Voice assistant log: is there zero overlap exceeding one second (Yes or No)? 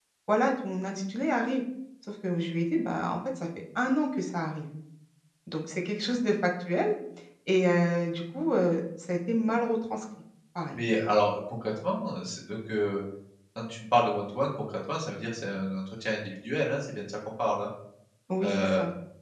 Yes